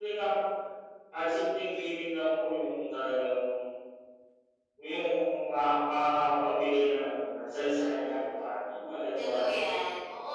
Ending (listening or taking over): taking over